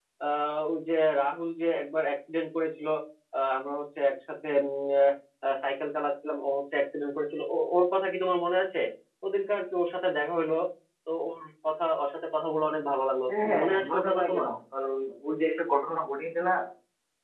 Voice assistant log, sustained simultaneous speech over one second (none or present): present